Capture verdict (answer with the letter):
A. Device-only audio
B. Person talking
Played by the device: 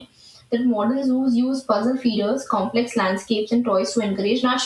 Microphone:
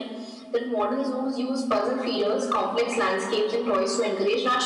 A